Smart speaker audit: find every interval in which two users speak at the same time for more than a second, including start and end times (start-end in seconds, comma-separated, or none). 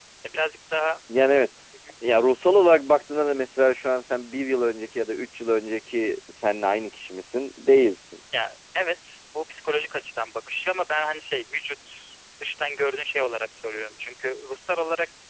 none